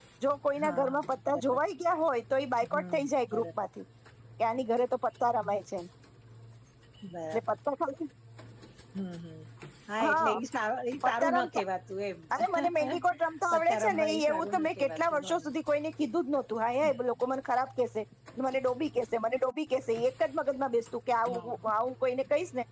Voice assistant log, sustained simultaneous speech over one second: present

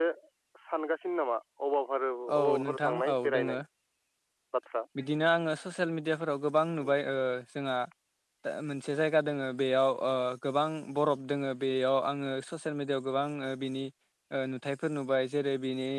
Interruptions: present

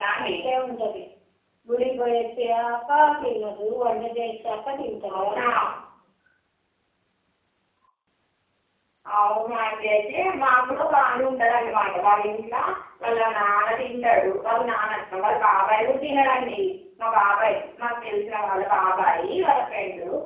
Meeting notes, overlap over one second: none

